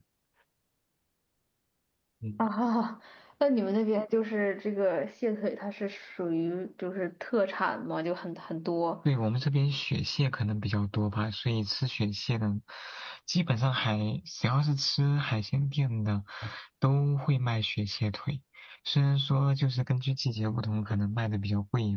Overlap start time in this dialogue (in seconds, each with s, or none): none